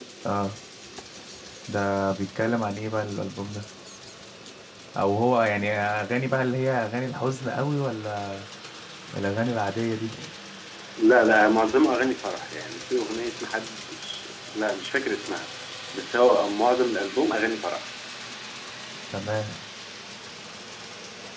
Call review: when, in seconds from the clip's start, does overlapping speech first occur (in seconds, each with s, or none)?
none